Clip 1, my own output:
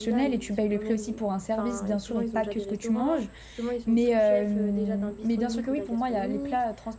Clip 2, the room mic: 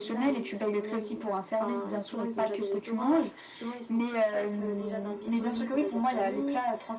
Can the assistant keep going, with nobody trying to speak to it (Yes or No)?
Yes